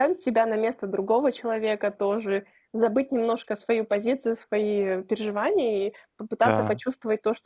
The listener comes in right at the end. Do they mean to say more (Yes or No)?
No